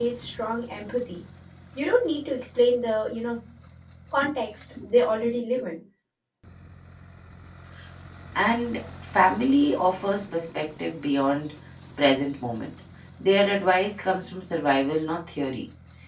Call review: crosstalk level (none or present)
none